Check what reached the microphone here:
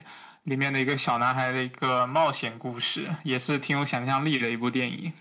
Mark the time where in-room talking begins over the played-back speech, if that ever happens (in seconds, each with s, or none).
none